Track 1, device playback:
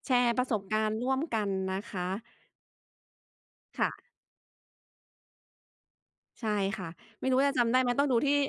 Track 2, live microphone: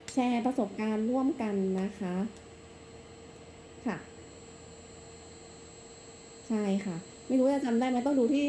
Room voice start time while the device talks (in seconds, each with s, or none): none